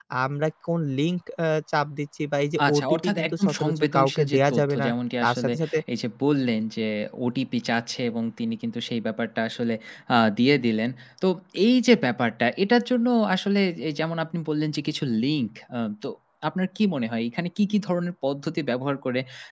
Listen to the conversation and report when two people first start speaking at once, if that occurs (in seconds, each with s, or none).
2.6 s